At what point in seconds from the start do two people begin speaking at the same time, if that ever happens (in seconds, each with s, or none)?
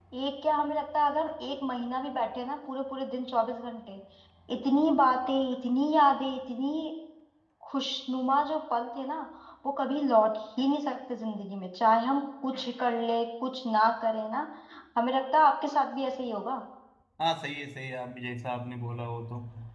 none